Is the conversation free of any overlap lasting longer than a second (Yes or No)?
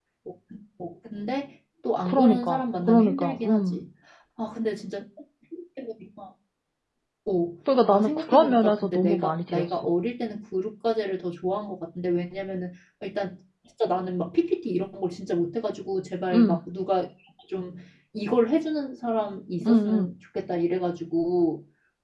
No